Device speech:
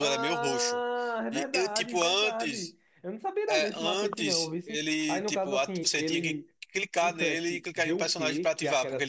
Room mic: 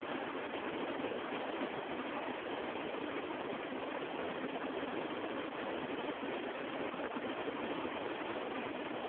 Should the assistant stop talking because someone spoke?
No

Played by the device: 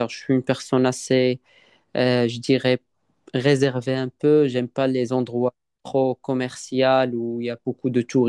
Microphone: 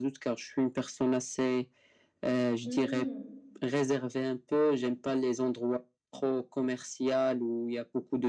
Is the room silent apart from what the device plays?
No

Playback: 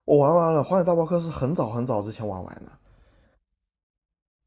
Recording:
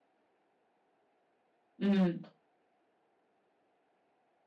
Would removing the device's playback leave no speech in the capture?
No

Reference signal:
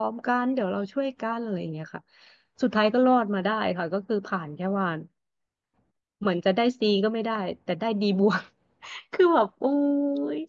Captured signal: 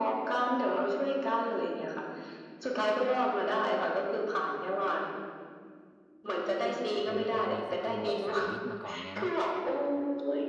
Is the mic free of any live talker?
No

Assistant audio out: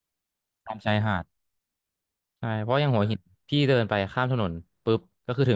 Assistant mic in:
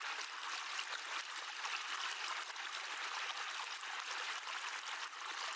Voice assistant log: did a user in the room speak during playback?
No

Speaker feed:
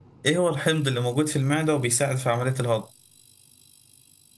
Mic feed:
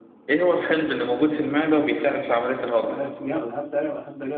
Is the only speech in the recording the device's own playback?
No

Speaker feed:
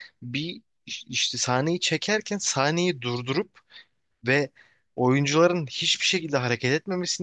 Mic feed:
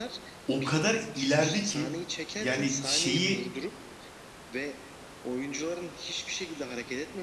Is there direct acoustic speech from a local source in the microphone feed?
Yes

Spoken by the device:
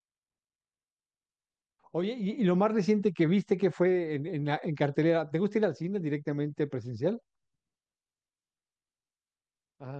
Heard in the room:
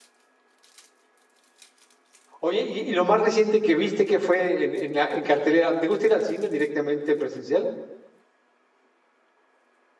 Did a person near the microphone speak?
No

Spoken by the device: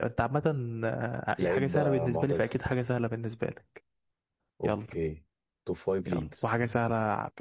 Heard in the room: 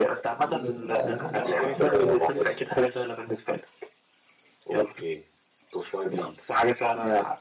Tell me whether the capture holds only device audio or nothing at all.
No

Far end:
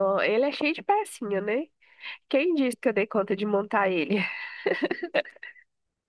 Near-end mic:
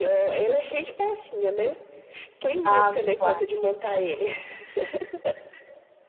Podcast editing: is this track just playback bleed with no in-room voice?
No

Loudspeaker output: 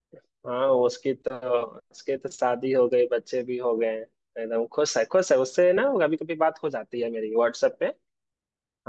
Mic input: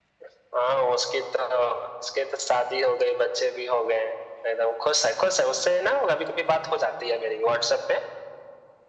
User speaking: No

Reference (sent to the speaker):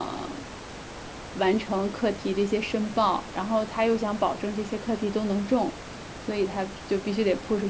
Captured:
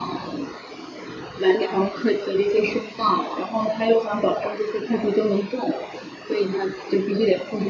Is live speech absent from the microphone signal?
Yes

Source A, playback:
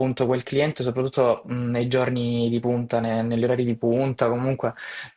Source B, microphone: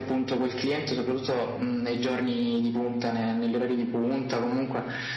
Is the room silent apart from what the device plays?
Yes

